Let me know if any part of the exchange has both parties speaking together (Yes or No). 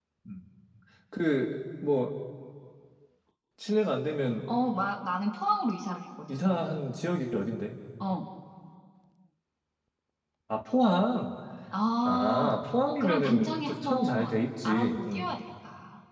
Yes